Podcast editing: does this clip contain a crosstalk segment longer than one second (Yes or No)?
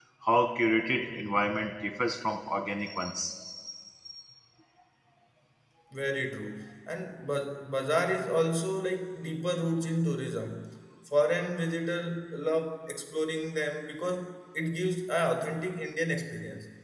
No